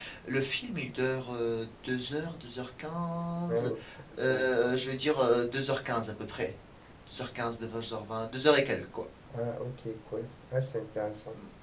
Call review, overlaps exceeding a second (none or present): none